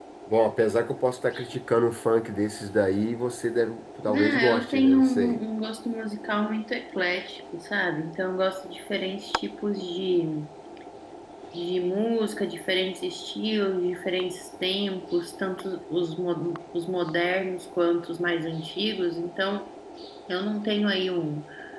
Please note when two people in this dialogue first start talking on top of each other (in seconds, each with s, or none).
4.1 s